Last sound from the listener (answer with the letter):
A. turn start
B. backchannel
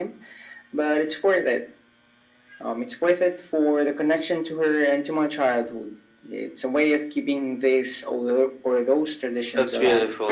A